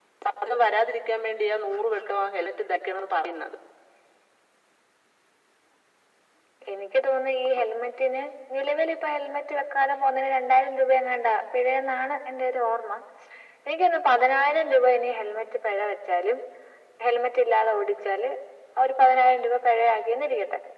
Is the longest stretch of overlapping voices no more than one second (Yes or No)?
Yes